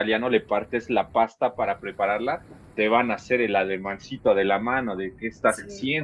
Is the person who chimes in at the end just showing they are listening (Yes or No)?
No